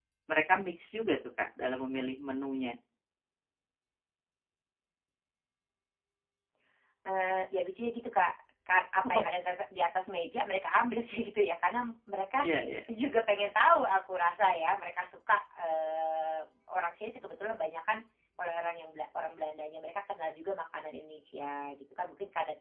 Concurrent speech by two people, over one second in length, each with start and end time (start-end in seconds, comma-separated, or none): none